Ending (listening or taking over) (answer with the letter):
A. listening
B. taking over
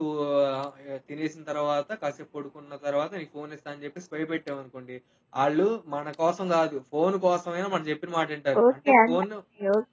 B